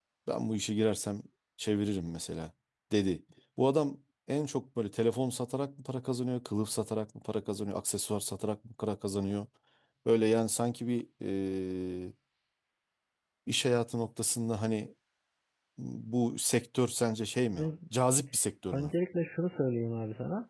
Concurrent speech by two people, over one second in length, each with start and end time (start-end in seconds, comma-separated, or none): none